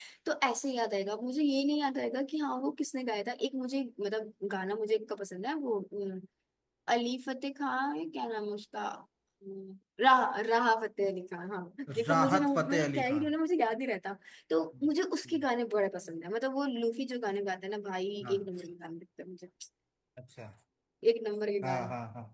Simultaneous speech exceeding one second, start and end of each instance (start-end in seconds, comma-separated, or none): 12.1-13.3